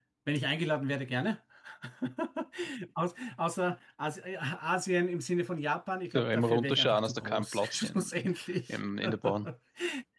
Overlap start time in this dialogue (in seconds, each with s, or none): 6.2 s